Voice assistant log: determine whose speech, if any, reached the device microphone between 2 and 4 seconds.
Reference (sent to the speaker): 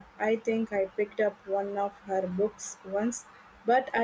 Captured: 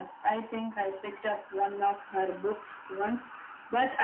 echo only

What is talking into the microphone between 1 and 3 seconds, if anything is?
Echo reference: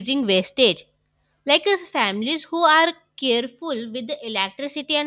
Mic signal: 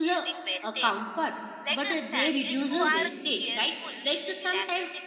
both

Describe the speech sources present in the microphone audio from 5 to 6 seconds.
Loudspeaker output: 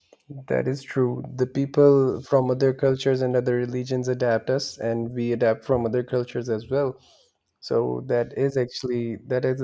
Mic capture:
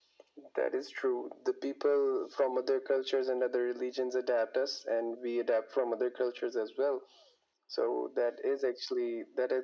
echo only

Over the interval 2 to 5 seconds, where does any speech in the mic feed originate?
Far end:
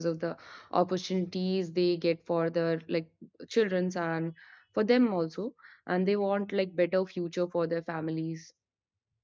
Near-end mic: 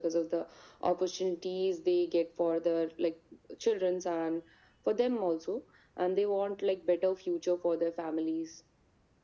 echo only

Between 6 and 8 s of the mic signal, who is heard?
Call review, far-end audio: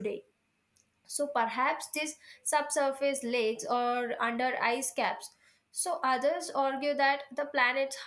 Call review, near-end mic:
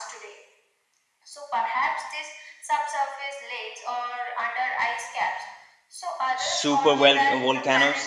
both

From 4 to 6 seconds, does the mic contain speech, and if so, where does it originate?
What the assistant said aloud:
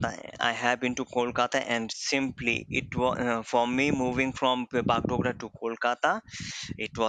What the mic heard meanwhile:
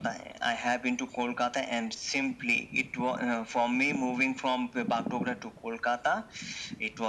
echo only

